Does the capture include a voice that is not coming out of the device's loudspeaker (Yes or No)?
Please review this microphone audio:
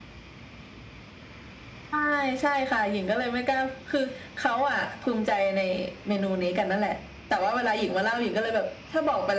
No